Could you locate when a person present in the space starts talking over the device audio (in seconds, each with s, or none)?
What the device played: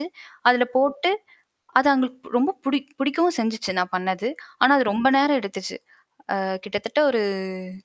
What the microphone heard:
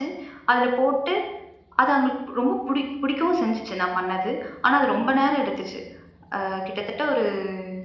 none